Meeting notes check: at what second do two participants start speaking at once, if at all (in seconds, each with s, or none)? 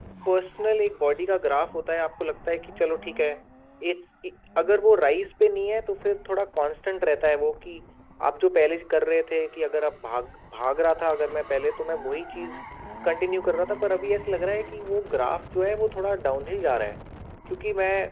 none